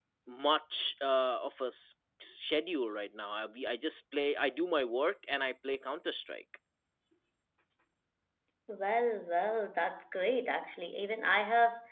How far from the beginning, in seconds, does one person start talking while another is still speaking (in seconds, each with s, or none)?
none